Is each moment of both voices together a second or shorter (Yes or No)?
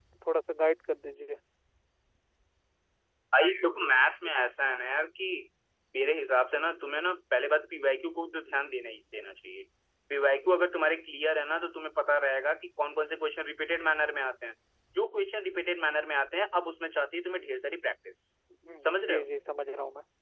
Yes